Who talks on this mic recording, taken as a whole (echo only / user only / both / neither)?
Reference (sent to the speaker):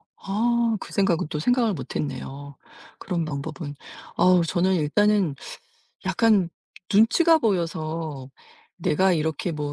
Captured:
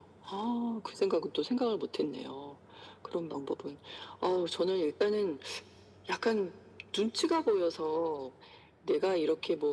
echo only